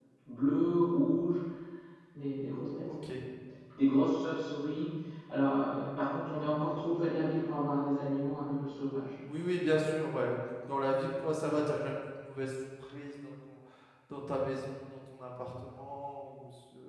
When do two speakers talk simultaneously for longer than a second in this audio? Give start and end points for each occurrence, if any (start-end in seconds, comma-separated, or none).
none